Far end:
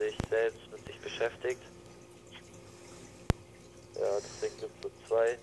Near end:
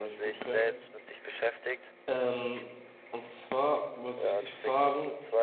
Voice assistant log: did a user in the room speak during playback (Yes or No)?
Yes